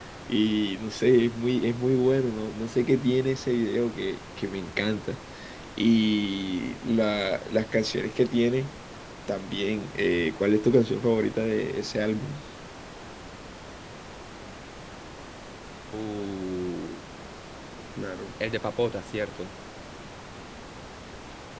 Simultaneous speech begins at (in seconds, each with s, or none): none